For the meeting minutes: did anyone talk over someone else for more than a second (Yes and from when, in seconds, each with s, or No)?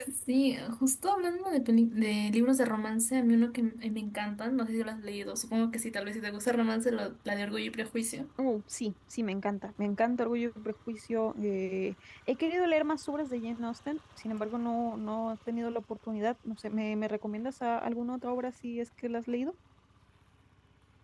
No